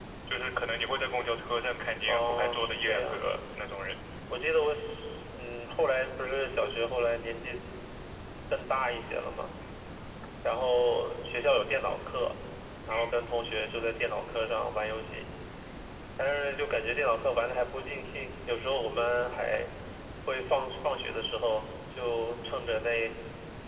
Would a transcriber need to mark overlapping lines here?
Yes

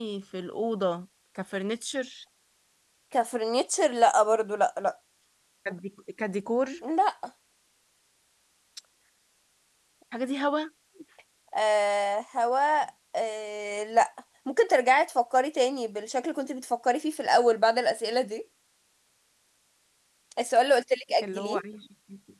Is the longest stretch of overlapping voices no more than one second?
Yes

